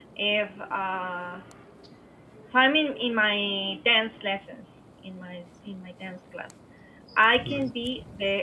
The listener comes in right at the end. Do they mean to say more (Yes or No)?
No